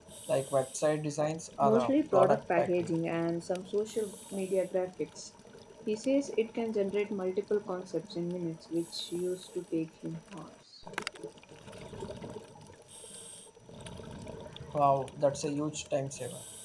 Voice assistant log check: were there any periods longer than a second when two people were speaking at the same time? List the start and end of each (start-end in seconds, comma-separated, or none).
1.6-2.9